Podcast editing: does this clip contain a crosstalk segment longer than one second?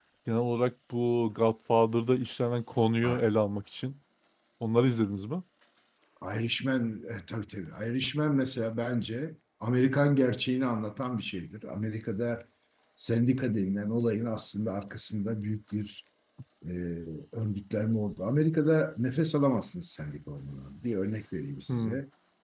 No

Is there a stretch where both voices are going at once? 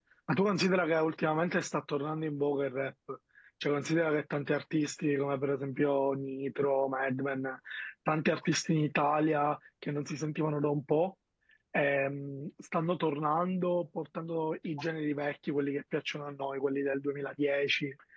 No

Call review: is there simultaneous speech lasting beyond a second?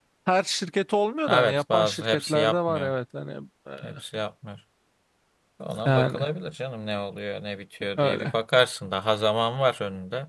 Yes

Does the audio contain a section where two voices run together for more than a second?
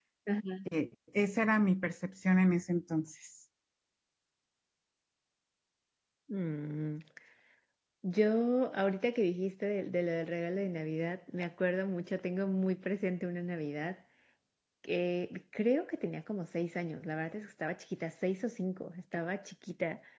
No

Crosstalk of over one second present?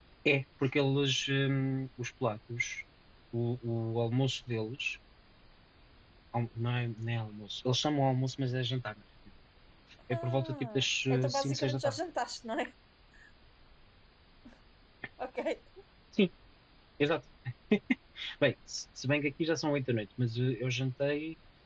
Yes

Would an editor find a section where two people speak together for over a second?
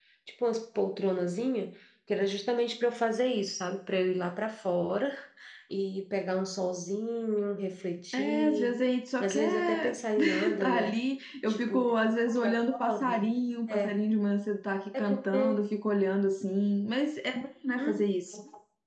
Yes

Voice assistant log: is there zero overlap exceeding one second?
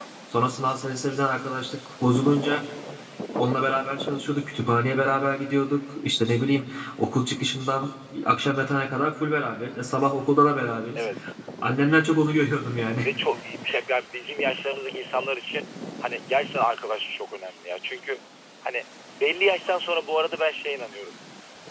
Yes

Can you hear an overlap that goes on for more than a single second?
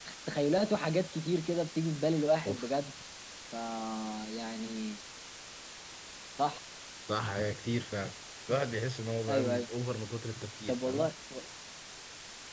No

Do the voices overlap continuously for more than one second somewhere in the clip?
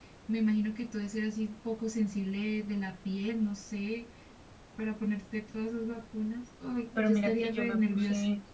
Yes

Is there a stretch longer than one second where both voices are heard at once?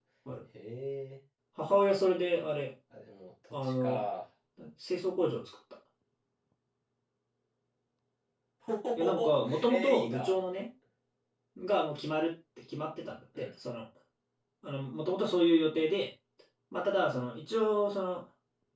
Yes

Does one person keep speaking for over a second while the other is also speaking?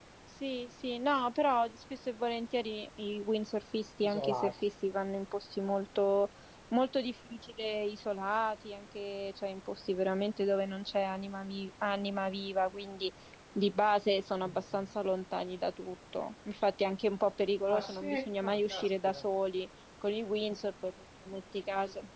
Yes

